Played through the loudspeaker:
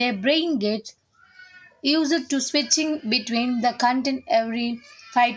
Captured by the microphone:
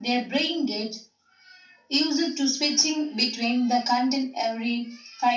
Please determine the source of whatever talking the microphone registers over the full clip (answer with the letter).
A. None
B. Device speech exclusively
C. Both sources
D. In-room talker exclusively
B